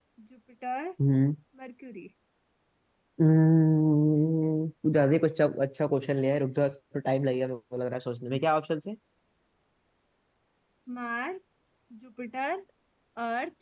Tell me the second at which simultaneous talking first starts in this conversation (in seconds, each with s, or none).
none